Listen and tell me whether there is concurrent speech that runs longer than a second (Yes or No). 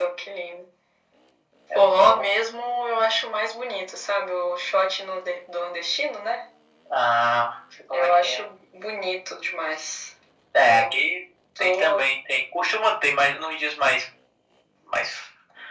No